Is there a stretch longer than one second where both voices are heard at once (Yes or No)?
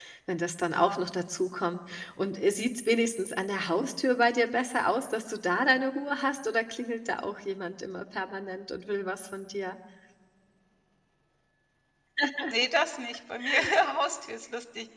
No